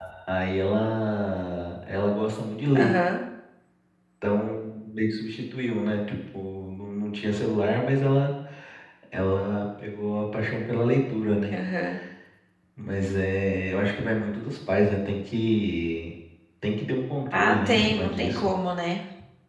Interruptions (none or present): present